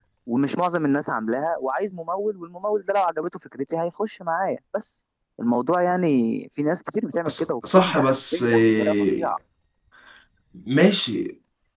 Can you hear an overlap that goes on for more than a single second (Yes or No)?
Yes